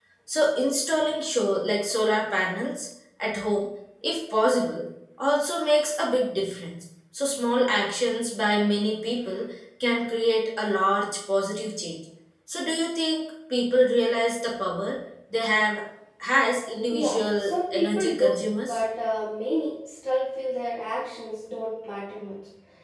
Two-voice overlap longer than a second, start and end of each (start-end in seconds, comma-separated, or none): 16.9-18.8